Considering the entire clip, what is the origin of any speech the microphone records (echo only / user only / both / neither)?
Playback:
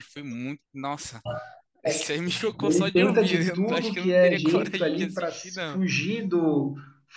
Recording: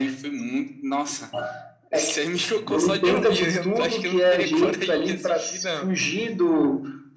echo only